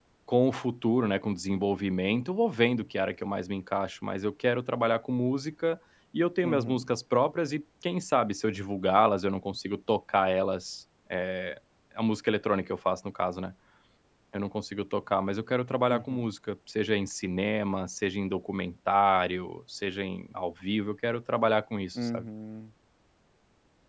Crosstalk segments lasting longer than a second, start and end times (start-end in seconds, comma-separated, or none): none